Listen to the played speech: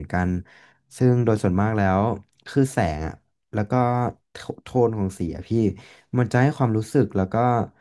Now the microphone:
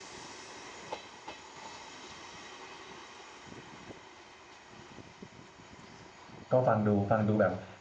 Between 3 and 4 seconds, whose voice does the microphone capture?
neither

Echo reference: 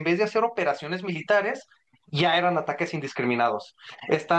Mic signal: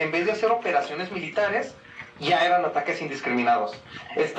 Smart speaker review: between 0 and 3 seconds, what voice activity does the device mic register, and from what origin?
echo only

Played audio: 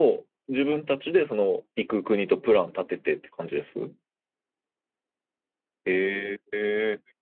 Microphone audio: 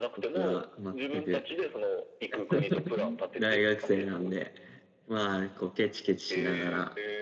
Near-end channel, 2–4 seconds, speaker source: both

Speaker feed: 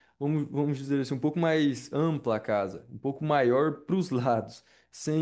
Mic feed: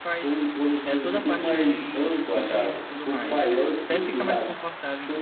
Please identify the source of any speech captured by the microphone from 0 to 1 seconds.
both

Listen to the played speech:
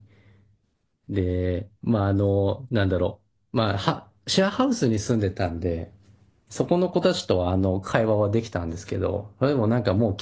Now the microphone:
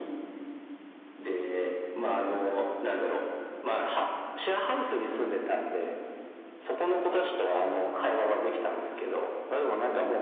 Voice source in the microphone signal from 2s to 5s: echo only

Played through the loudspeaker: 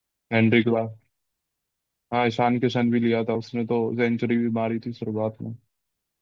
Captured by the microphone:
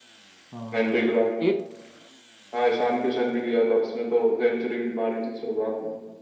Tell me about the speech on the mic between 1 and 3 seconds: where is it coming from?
both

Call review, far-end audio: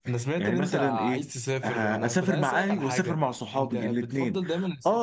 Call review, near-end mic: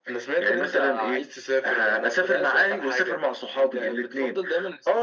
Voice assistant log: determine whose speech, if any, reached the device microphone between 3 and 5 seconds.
echo only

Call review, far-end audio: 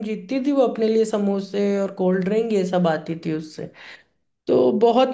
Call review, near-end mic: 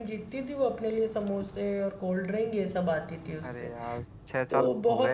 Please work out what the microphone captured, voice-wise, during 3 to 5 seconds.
both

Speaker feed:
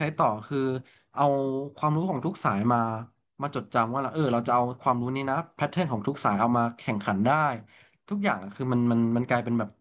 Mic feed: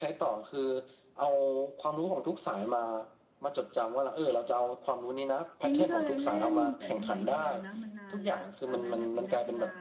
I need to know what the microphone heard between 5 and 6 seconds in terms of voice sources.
both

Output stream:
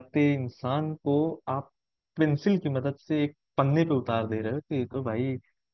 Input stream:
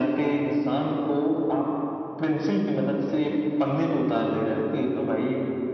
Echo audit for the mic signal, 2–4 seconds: echo only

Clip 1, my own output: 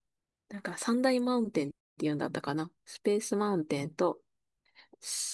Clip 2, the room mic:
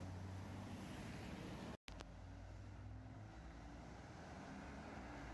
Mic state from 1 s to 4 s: neither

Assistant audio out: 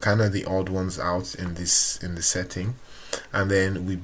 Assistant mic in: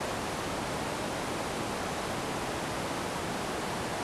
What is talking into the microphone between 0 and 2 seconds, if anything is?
neither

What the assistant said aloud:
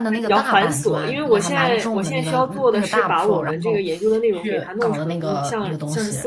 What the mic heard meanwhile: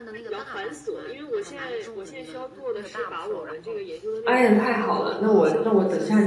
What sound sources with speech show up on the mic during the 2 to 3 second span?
echo only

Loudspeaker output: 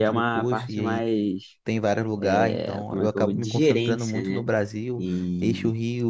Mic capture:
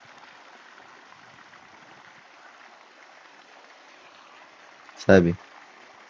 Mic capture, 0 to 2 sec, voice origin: neither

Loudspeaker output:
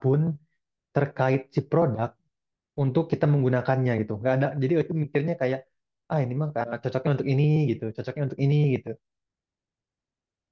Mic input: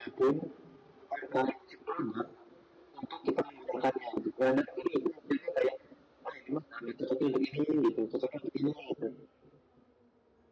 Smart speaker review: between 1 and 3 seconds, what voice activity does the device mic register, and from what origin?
echo only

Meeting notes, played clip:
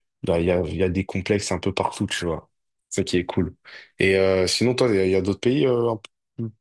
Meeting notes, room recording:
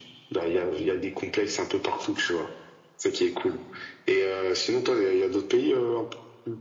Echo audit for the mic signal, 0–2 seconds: echo only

